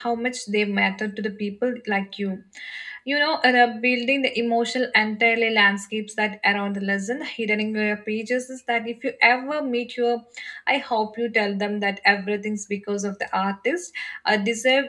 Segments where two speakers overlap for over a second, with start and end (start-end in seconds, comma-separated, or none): none